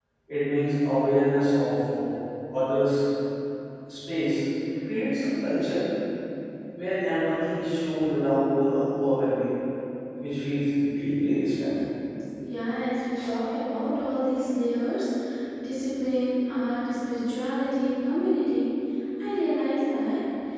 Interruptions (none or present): none